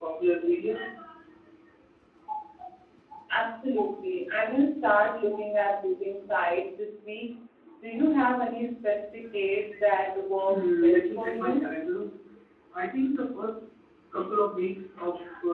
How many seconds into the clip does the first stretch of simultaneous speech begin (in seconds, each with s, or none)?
10.4 s